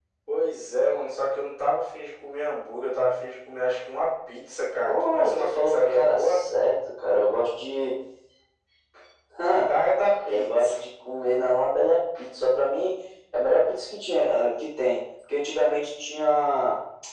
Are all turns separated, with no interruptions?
No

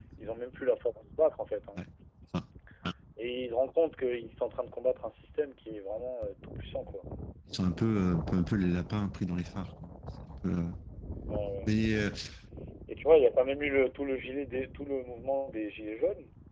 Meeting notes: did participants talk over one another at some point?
No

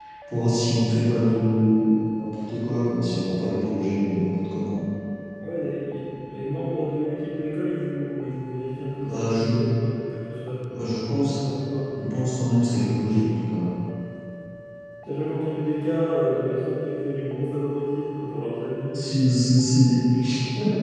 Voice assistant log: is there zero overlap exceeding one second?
Yes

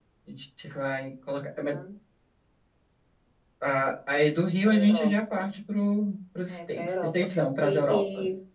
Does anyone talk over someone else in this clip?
Yes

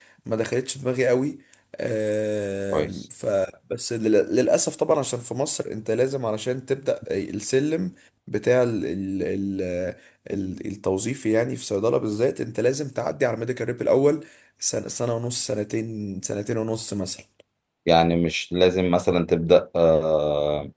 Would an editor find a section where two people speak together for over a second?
No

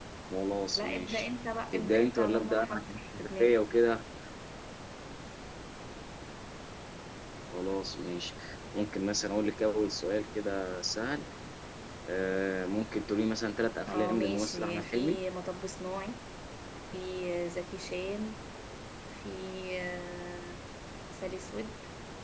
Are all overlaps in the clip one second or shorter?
No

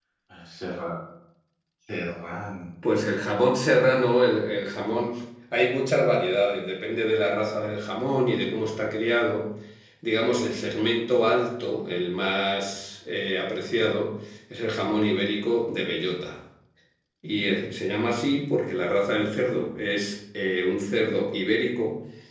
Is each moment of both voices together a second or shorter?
Yes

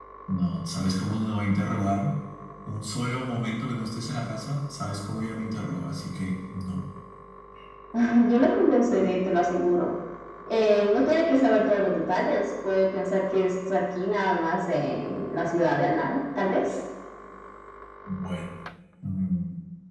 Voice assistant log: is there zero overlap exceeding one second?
Yes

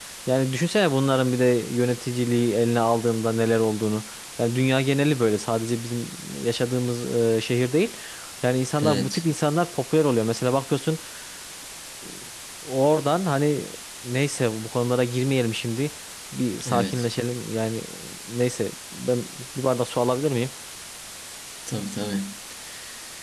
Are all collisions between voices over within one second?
Yes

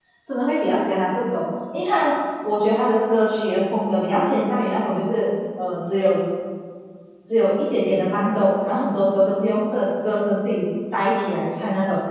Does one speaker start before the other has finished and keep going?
No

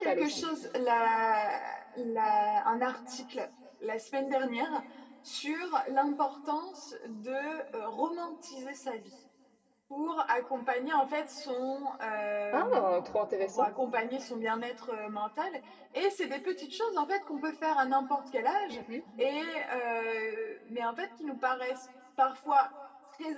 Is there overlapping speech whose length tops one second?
No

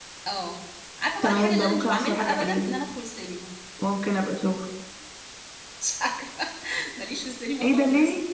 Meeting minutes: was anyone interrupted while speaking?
Yes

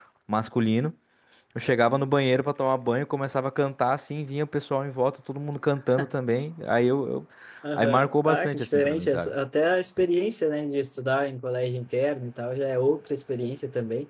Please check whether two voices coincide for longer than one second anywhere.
Yes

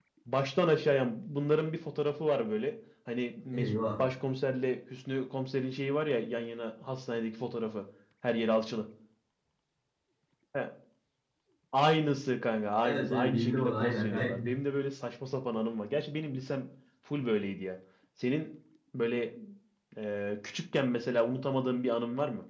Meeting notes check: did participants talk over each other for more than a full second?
Yes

